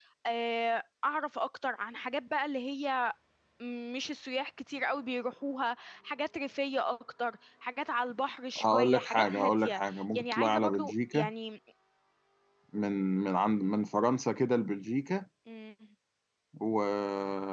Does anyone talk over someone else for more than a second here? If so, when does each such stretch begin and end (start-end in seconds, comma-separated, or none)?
8.6-11.3